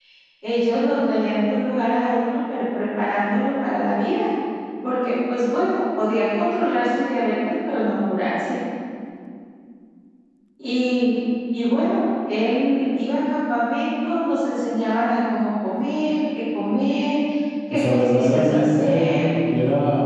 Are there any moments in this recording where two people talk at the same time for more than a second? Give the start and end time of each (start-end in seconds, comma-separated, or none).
17.7-19.1